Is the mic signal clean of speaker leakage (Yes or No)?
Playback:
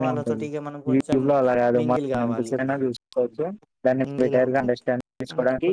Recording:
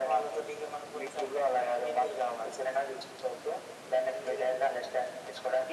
No